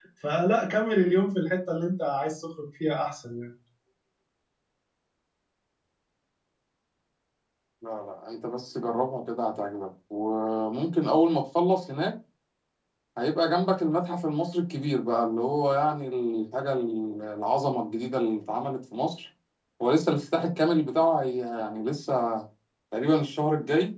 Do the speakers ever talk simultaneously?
No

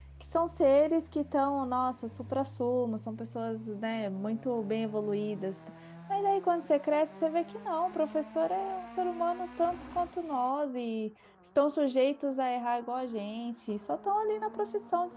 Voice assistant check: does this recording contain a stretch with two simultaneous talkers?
No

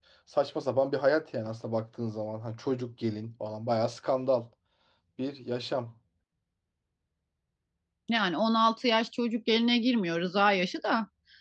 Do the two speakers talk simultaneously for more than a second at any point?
No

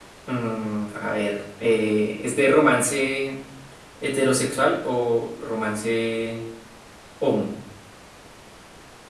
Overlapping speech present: No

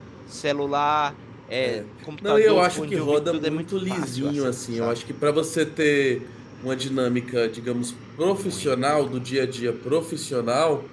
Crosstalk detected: Yes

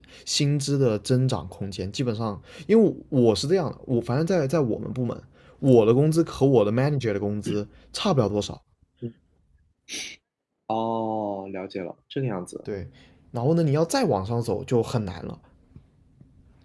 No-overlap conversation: Yes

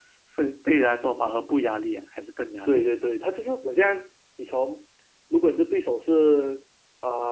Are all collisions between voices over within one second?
Yes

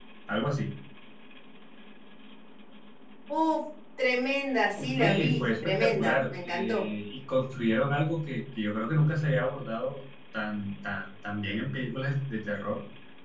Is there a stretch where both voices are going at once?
Yes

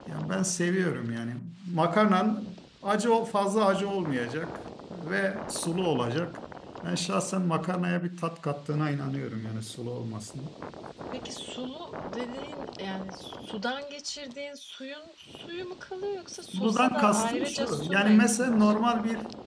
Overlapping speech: Yes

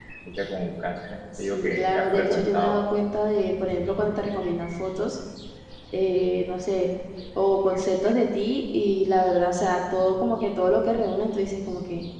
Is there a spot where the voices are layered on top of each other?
Yes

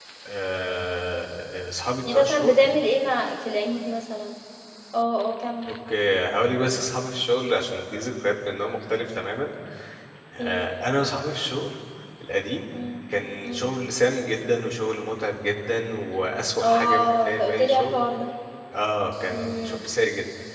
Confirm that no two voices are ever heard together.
No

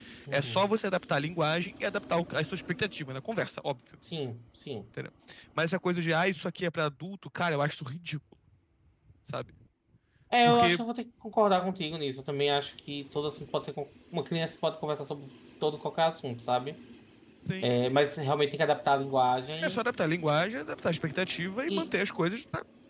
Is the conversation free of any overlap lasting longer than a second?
Yes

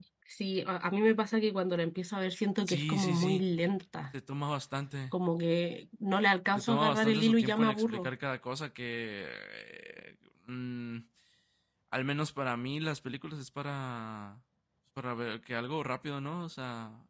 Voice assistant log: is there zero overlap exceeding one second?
No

